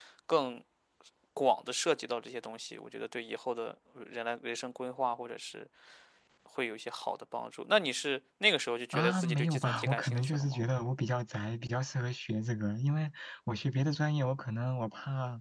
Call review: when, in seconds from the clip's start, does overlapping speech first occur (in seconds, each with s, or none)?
8.9 s